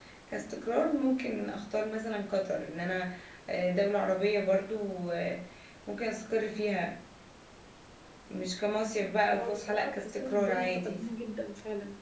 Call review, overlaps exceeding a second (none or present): present